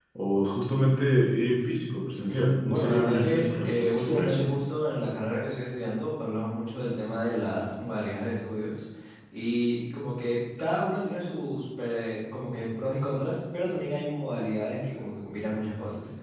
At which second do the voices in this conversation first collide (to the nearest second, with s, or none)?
2 s